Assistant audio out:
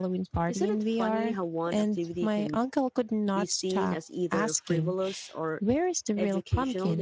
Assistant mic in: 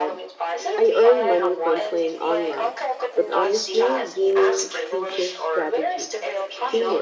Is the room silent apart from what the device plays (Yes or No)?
No